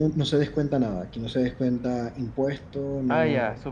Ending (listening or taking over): taking over